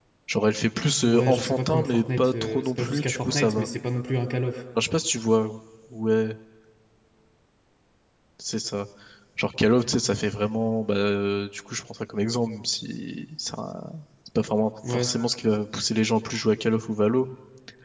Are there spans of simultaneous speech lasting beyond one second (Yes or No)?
Yes